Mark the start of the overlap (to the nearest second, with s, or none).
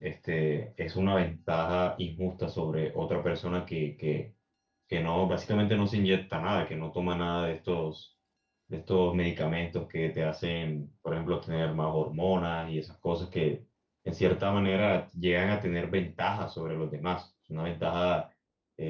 none